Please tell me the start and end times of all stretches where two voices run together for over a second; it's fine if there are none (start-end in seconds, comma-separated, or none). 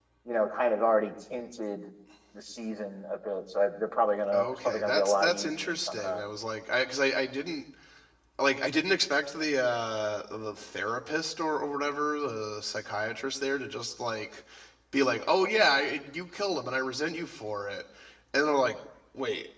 4.3-6.2